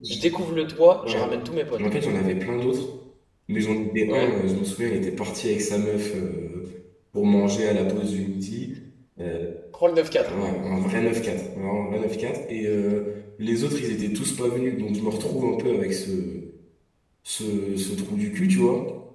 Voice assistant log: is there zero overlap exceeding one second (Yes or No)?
Yes